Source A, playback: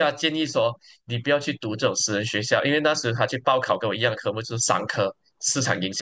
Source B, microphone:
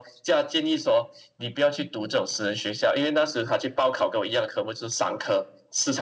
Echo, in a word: present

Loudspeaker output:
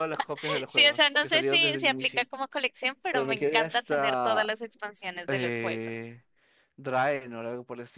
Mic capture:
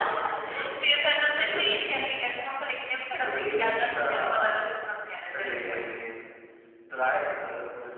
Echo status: present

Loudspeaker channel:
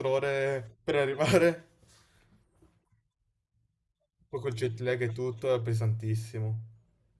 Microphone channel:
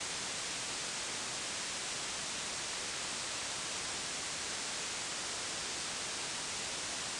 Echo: none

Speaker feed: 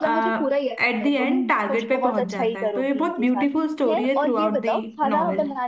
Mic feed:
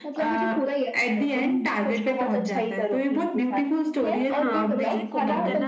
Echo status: present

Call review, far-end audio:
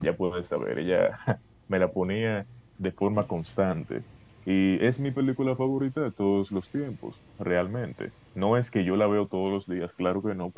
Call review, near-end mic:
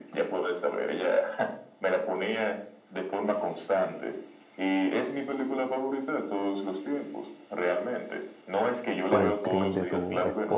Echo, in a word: present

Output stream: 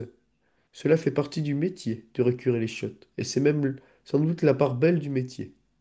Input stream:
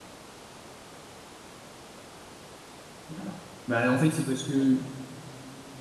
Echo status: none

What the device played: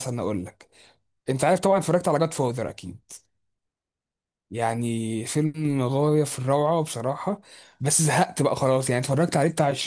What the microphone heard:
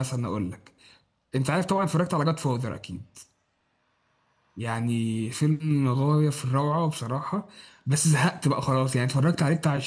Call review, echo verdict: present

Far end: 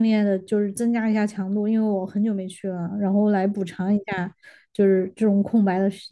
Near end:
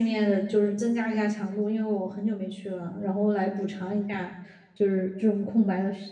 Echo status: present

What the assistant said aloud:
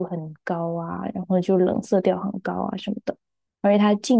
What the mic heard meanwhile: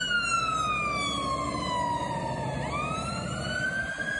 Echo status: none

